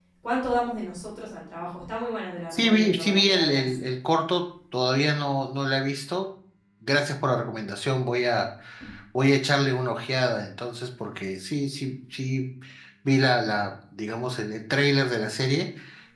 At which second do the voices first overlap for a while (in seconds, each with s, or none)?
2.5 s